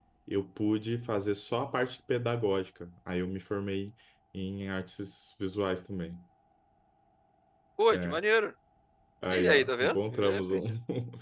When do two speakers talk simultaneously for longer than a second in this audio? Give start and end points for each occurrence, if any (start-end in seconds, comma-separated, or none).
9.3-10.6